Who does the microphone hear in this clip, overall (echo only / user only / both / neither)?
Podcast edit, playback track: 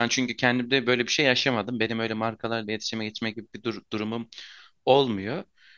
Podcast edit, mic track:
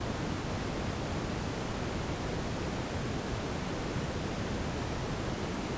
neither